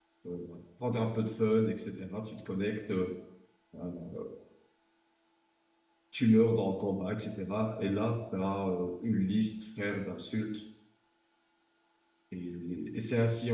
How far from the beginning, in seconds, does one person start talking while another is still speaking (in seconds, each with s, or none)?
none